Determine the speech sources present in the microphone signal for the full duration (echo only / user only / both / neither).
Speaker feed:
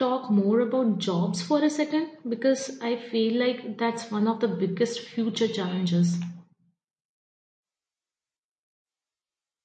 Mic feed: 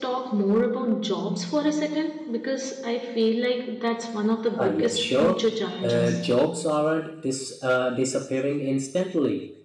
both